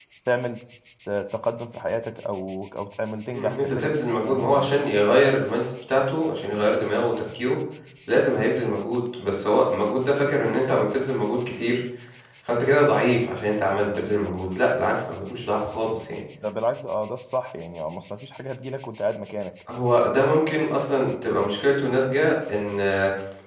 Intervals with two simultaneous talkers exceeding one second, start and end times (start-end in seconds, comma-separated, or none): 3.3-4.7